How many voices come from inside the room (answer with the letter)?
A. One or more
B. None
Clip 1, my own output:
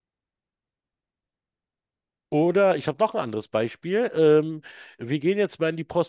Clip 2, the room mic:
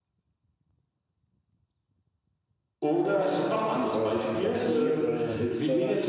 A